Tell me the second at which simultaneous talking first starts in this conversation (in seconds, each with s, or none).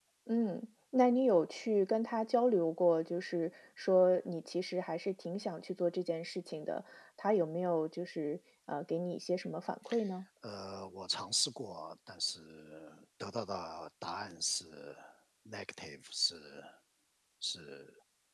none